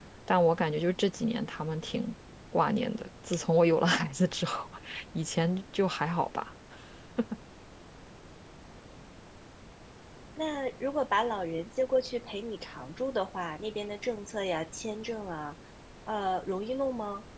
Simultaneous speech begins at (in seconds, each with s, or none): none